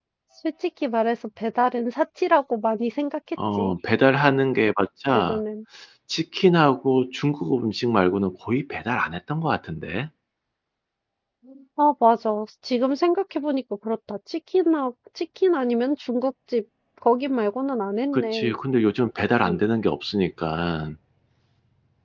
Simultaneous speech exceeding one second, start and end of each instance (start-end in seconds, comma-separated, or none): none